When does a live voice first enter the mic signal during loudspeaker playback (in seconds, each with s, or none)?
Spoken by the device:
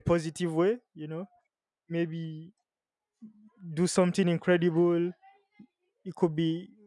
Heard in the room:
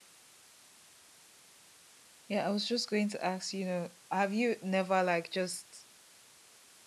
2.3 s